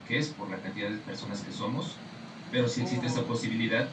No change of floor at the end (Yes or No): Yes